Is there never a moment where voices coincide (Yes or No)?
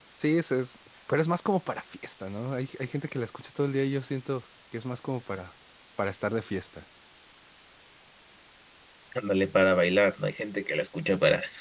Yes